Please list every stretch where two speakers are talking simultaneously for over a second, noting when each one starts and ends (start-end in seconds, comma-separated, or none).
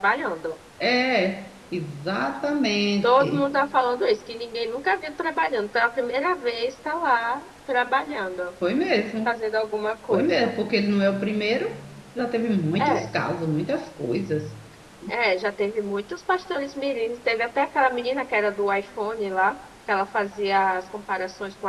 none